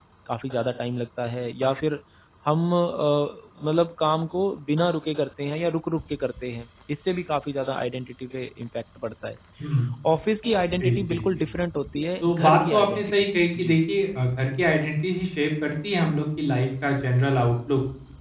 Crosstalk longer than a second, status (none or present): present